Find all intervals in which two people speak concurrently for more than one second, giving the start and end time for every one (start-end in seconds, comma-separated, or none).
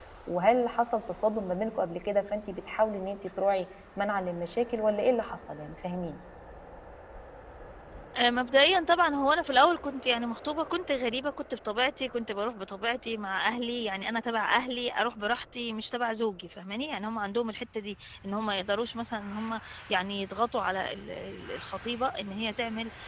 none